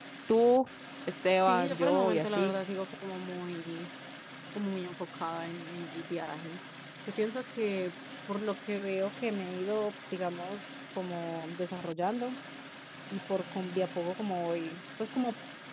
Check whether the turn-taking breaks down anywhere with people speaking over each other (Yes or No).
Yes